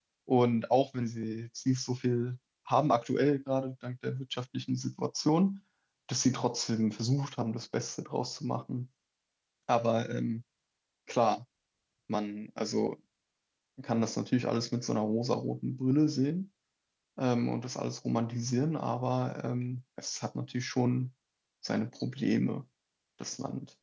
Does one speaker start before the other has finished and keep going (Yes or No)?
No